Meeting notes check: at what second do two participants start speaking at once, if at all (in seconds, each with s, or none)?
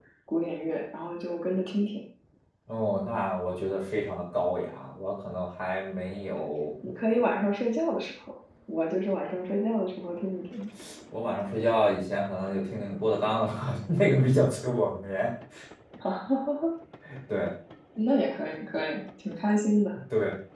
none